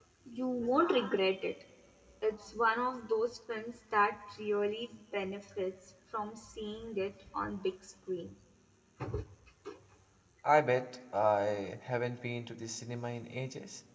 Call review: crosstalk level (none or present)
none